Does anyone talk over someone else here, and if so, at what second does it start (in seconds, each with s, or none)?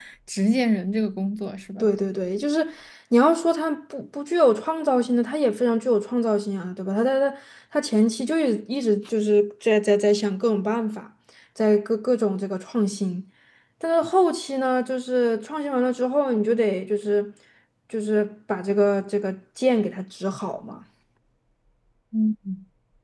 none